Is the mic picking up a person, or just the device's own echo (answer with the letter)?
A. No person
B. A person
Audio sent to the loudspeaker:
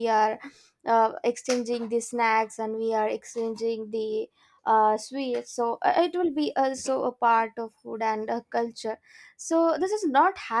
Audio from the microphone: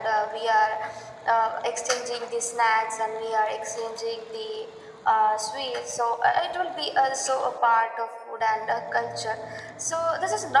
A